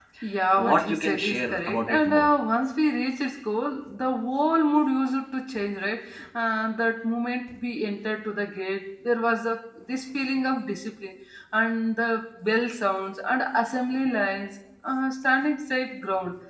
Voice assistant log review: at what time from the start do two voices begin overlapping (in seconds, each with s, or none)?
0.6 s